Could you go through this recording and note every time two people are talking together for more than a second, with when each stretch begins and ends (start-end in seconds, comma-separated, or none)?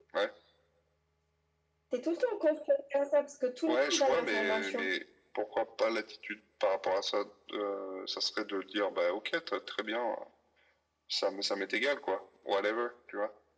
3.7-4.9